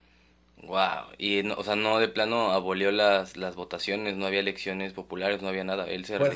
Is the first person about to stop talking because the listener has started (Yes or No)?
Yes